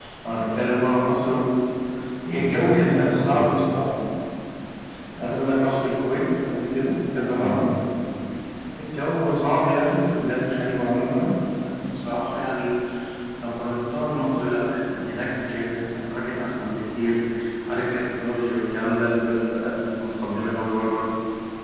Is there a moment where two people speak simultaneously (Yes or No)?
Yes